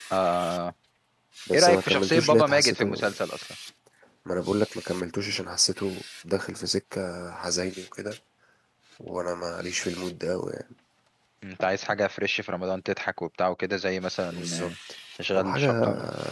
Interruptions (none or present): present